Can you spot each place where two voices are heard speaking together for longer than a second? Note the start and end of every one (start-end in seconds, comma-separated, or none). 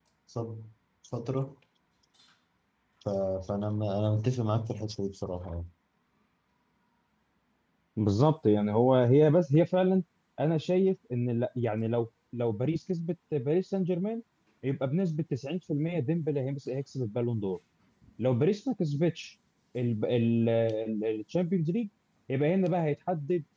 none